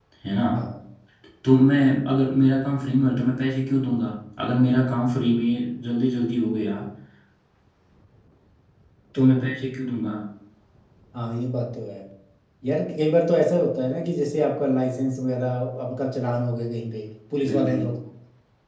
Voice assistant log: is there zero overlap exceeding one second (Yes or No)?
Yes